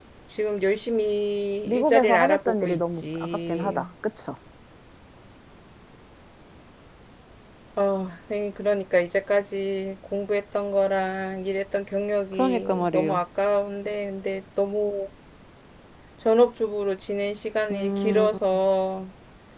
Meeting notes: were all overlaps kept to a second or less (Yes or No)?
No